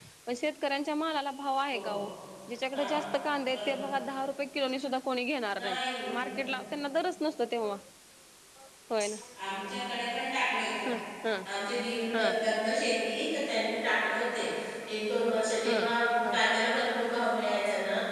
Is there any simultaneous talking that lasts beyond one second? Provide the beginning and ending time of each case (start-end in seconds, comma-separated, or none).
none